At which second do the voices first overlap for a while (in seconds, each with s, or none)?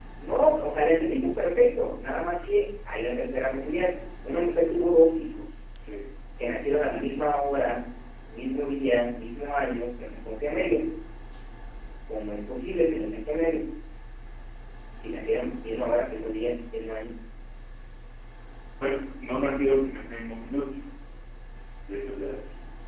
none